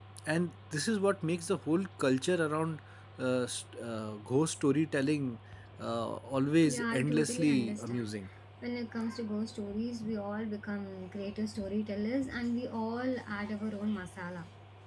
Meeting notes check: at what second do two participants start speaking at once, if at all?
6.6 s

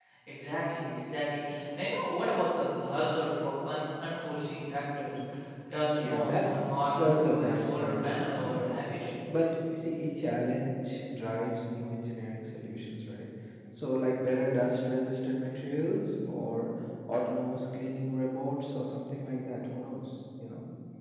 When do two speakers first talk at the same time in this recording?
6.0 s

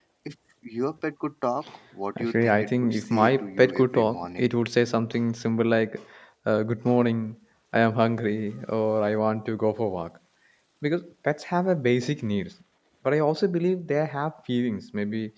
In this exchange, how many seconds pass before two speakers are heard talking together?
2.2 s

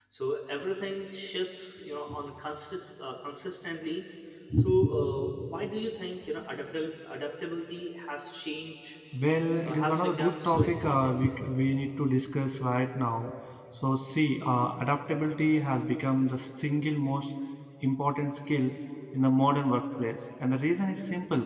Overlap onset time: 9.6 s

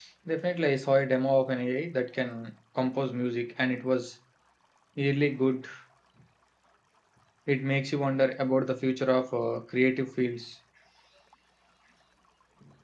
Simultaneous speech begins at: none

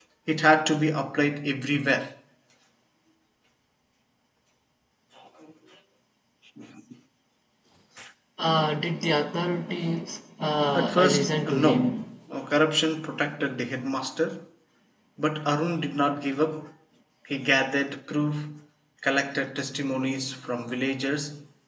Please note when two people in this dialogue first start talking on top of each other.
10.8 s

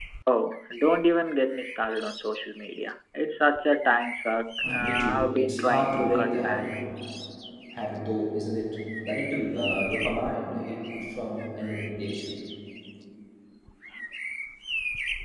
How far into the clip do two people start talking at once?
4.6 s

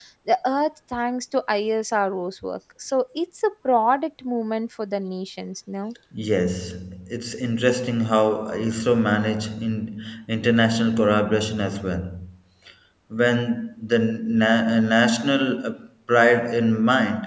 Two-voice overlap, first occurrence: none

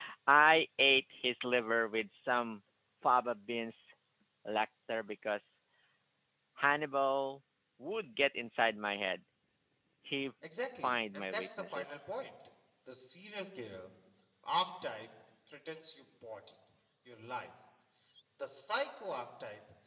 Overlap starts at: 10.8 s

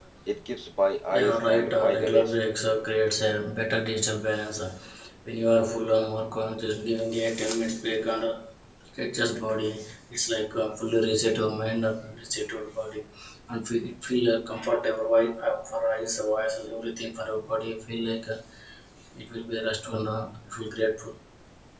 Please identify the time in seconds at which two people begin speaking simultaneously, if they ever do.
1.1 s

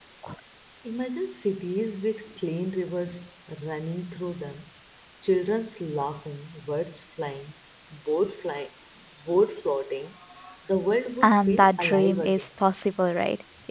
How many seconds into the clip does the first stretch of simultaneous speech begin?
11.2 s

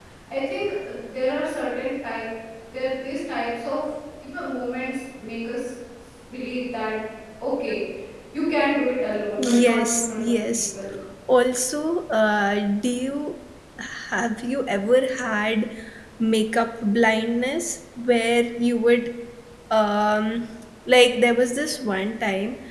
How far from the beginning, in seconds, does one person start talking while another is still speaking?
9.4 s

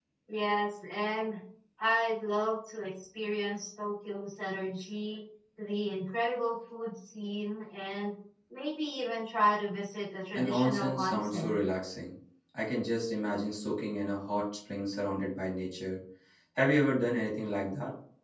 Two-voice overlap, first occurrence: 10.4 s

